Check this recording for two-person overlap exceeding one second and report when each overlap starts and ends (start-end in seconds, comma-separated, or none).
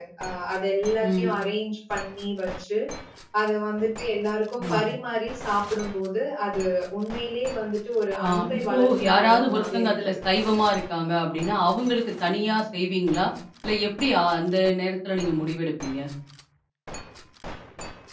8.2-10.1